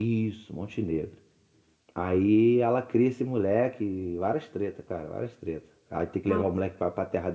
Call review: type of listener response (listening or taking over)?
listening